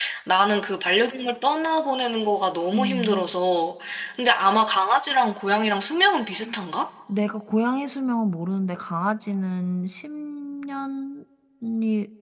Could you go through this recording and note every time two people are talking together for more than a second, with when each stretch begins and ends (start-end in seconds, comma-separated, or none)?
none